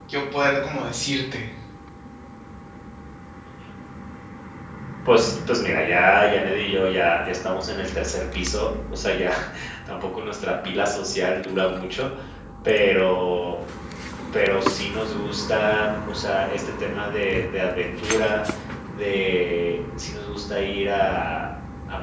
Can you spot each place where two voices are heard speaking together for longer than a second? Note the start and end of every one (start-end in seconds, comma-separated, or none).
none